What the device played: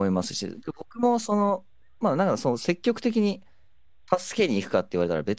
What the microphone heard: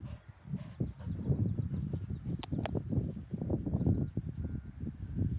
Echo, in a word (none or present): none